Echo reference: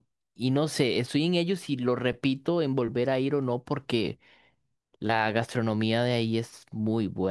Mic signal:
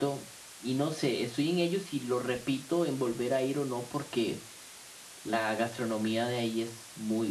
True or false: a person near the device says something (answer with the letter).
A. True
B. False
B